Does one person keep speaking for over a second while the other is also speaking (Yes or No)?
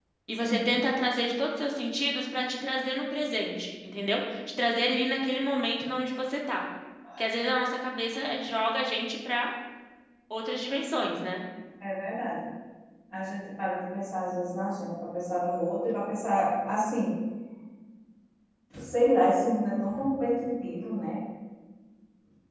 No